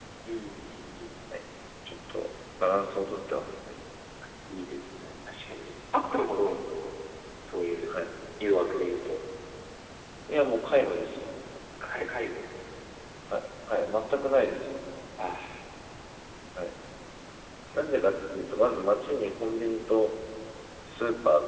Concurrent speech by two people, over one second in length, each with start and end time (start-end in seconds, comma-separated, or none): none